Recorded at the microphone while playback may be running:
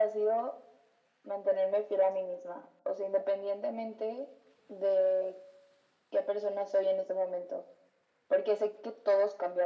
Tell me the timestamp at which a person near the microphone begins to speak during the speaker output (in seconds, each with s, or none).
none